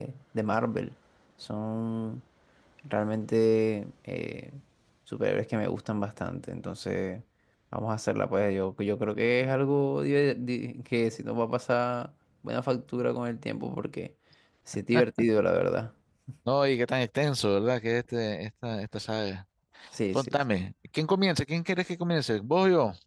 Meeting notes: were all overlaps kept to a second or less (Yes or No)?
Yes